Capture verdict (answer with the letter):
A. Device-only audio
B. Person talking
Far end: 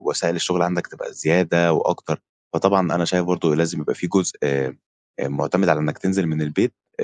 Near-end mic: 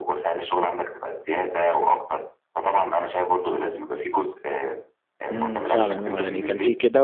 B